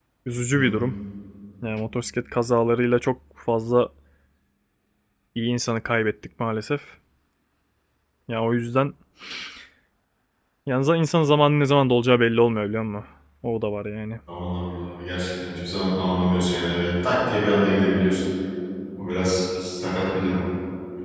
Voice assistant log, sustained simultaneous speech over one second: none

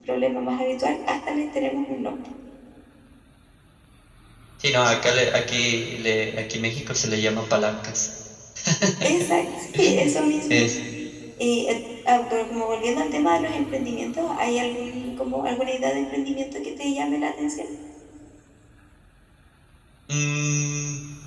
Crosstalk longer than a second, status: none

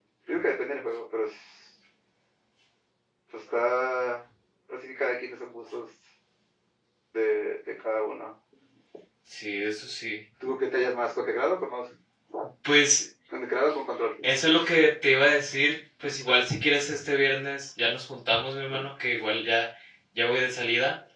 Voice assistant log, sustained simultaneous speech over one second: none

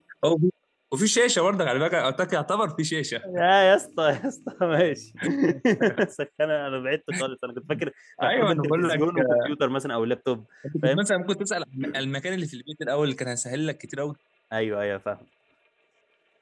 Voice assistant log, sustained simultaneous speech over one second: present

